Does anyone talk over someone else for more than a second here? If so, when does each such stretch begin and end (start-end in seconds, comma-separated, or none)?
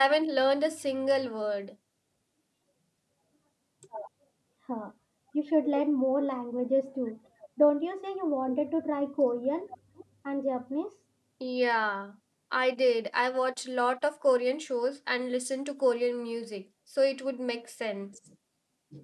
none